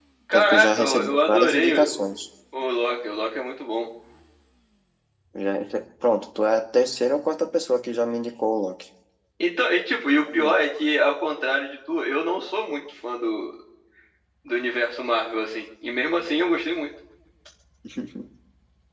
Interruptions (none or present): present